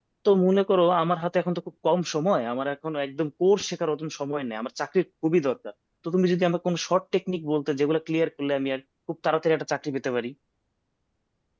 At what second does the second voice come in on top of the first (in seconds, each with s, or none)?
none